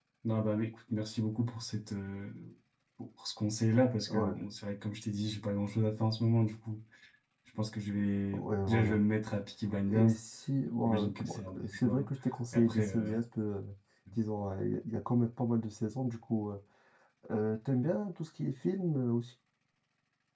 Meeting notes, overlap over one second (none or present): present